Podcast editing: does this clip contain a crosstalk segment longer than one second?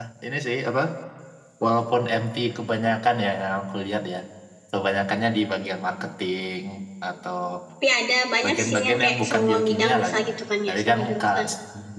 Yes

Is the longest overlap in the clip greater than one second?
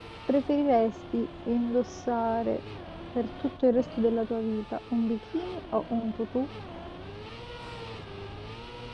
No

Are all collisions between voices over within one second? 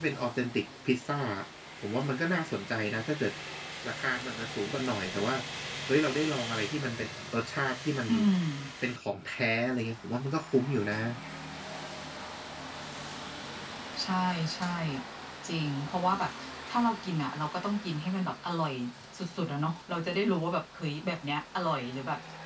Yes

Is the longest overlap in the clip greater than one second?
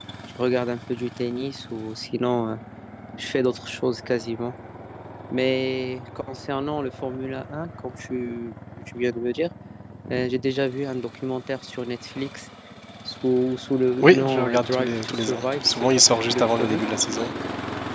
Yes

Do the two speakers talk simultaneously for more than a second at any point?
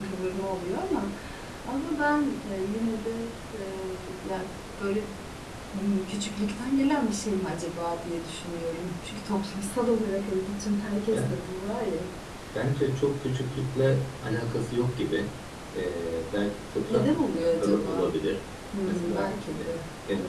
Yes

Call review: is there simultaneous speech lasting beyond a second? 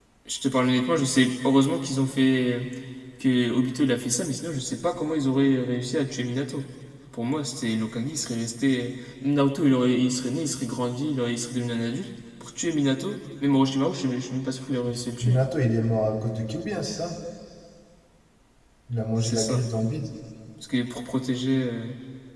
No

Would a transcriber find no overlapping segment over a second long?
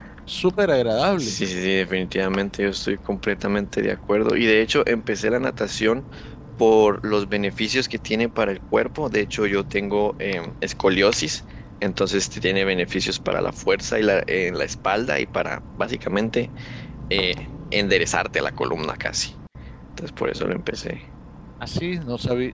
Yes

